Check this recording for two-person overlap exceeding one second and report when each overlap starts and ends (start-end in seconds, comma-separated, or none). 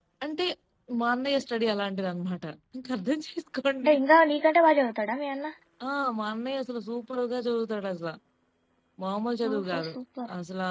none